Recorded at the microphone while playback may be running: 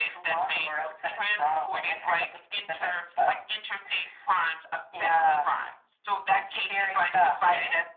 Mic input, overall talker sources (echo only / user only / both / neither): echo only